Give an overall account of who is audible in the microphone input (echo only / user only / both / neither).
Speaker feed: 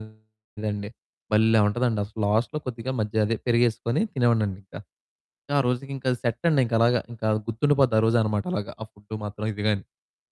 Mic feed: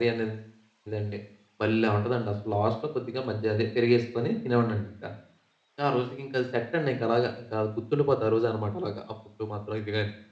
echo only